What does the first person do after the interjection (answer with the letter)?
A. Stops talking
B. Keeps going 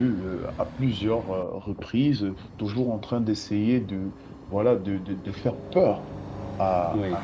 B